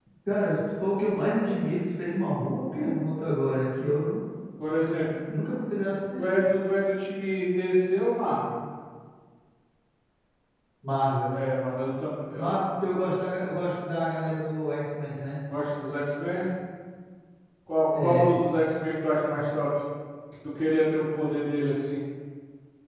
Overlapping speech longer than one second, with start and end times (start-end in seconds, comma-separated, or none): none